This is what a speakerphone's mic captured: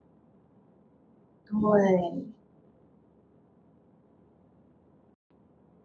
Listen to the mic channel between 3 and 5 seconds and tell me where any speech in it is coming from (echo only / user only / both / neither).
neither